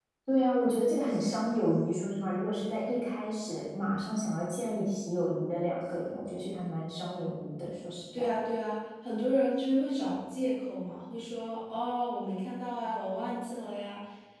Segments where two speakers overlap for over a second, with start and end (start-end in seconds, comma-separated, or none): none